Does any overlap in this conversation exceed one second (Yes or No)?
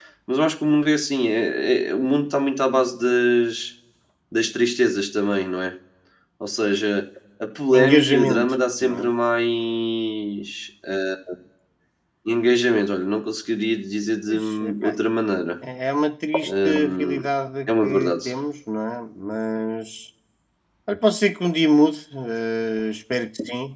Yes